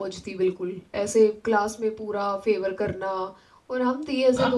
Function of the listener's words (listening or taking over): taking over